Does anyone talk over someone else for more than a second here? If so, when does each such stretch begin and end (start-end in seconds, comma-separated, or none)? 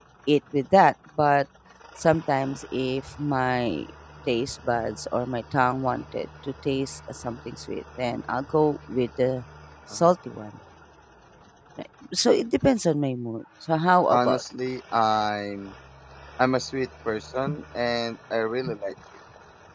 none